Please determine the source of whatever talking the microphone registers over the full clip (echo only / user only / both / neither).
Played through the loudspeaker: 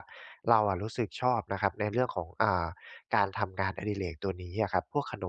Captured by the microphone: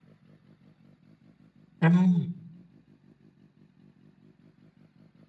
user only